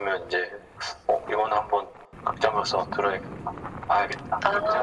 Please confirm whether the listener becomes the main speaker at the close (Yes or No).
Yes